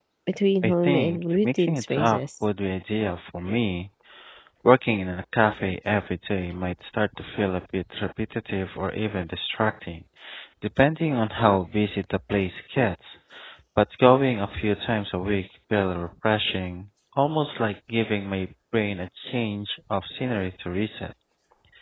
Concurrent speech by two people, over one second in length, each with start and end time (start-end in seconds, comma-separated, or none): 0.6-2.2